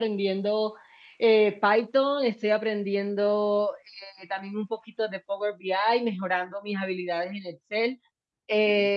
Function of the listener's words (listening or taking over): listening